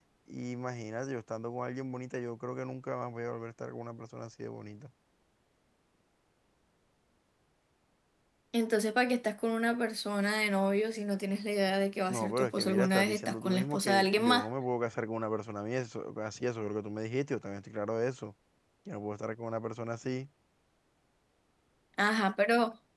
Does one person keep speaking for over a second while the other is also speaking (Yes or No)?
Yes